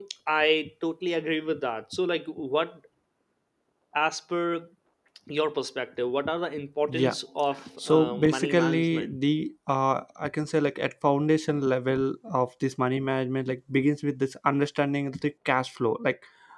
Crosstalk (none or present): present